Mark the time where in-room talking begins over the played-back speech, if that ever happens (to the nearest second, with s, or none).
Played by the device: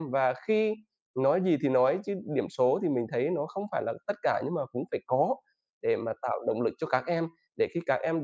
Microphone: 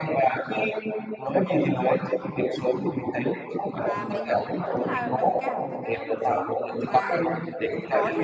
4 s